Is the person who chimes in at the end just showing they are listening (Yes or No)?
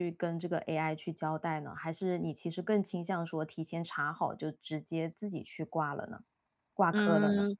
No